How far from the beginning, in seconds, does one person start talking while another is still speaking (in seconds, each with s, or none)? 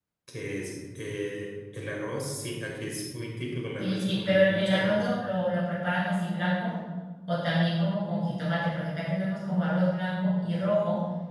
3.8 s